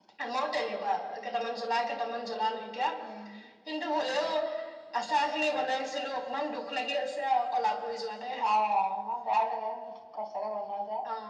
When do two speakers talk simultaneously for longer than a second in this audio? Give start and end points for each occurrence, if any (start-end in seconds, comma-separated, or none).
none